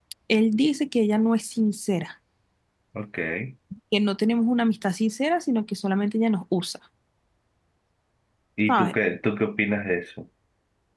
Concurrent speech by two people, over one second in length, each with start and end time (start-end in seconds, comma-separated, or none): none